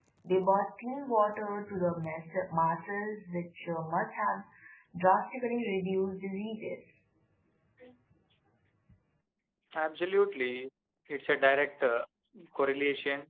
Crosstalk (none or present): none